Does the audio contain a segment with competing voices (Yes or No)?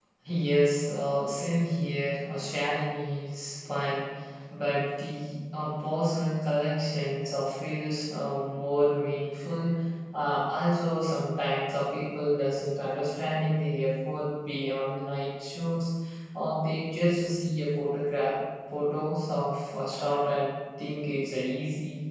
No